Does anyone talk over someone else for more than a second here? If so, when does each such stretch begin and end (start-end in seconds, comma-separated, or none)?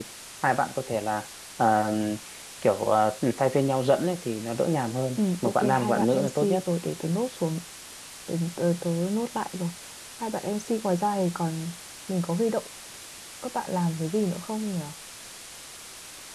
5.2-6.6